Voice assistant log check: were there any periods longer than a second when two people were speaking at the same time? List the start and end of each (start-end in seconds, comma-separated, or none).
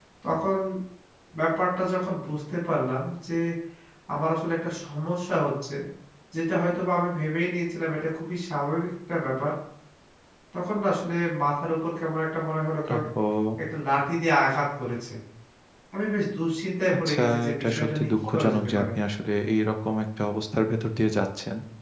17.0-18.9